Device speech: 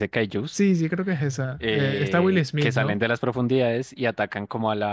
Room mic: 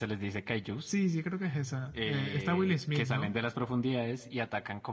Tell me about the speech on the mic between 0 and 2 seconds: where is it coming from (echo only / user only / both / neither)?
echo only